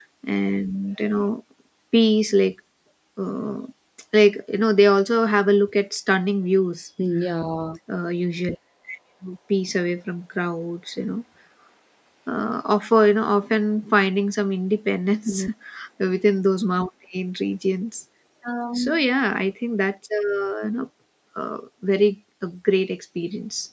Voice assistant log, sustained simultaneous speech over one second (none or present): none